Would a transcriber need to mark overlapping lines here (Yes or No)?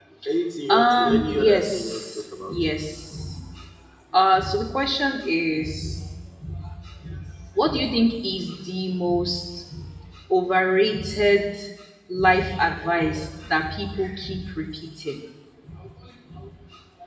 Yes